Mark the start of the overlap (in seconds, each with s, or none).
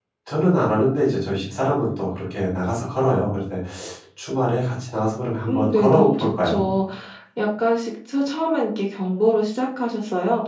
5.5 s